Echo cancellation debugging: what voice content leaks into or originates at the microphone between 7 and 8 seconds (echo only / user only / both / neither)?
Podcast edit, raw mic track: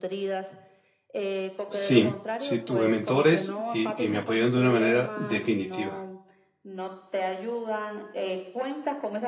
echo only